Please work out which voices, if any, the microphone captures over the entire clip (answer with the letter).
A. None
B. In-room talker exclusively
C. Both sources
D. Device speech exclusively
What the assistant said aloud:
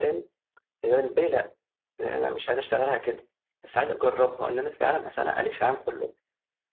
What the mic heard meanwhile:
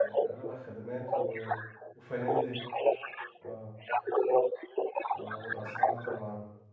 C